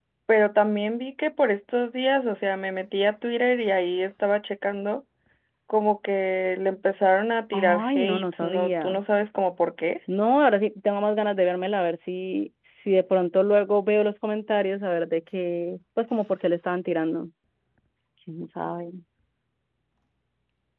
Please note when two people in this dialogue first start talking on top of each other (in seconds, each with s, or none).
7.5 s